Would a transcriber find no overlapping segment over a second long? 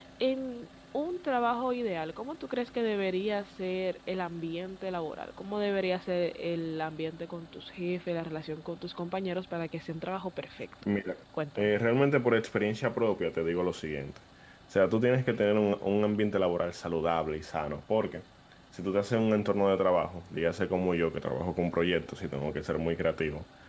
Yes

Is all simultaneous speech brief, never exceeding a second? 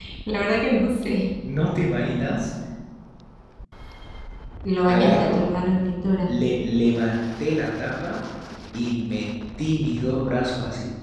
Yes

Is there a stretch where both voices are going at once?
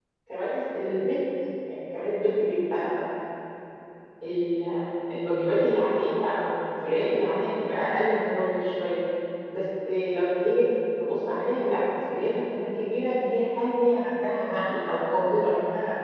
No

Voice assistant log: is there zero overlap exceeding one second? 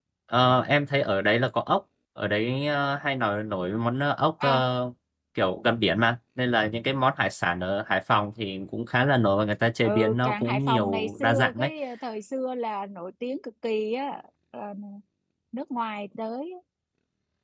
No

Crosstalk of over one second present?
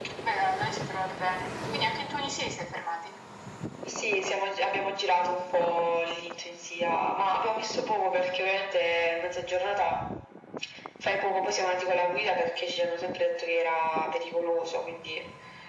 No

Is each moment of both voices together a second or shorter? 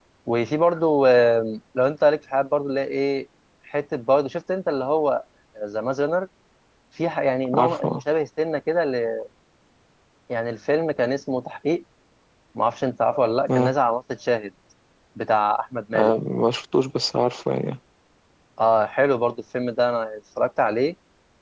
Yes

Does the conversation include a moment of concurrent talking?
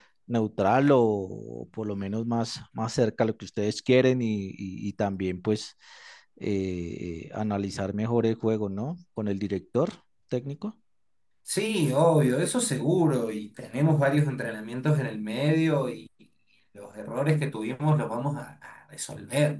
No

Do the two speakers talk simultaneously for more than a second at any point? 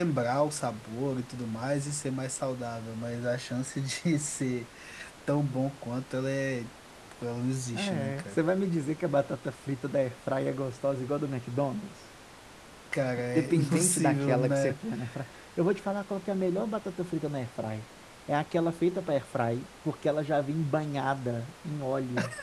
Yes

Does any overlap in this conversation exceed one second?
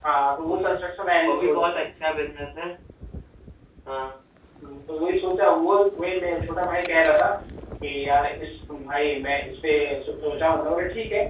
No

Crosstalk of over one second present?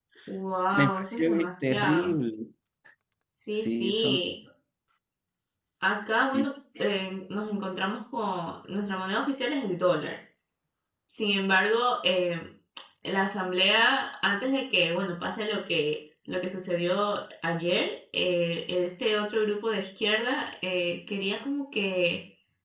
Yes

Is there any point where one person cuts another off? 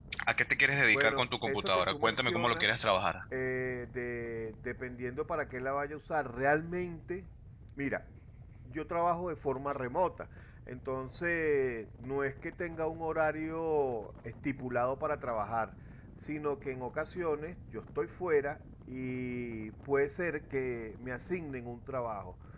Yes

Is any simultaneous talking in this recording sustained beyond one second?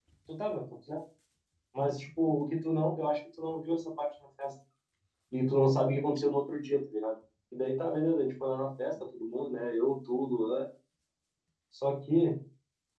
No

